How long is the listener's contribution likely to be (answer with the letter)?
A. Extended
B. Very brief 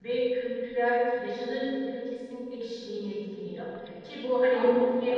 B